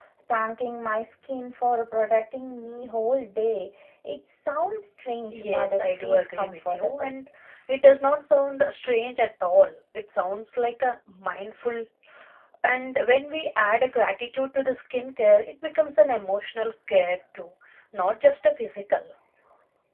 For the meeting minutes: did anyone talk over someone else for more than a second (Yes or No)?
Yes